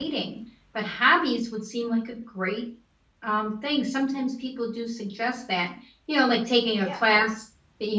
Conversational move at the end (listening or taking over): listening